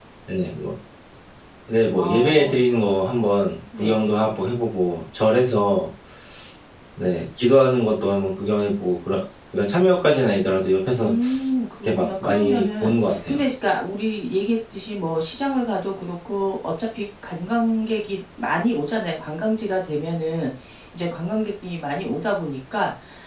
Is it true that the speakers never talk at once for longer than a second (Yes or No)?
No